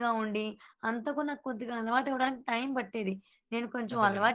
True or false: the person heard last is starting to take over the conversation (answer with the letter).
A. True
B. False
B